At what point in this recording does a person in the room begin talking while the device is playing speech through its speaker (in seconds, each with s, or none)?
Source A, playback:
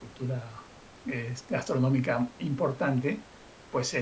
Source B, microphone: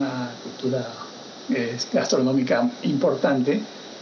none